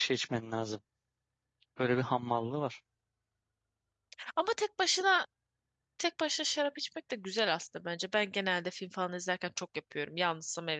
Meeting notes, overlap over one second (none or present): none